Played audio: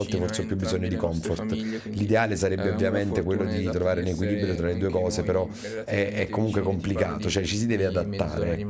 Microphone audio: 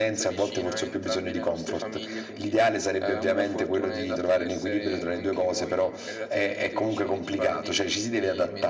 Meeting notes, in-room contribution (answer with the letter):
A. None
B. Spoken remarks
A